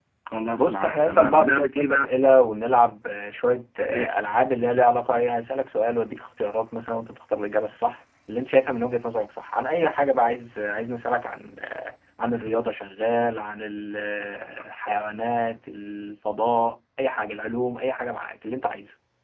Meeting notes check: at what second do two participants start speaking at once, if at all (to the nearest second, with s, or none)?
1 s